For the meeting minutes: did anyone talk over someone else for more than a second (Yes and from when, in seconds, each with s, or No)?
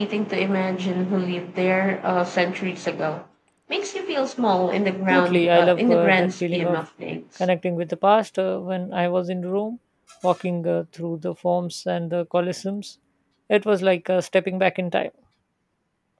Yes, from 5.1 s